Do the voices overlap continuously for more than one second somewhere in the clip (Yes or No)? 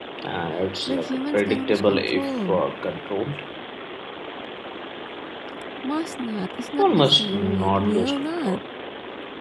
Yes